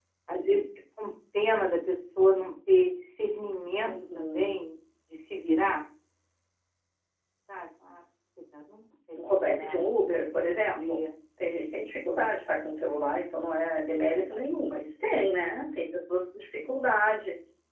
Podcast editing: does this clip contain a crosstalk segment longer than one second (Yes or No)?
Yes